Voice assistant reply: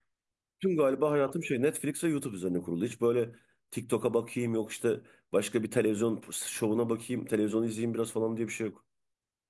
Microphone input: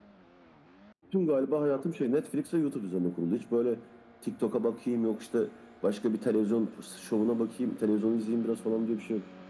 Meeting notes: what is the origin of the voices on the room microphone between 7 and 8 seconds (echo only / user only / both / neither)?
echo only